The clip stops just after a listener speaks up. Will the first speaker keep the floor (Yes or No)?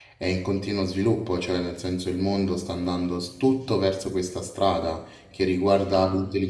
Yes